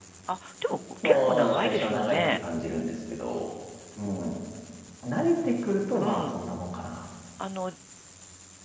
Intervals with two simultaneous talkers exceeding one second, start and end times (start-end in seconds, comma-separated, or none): 1.0-2.4